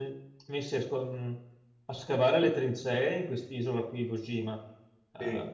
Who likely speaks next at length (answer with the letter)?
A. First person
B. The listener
A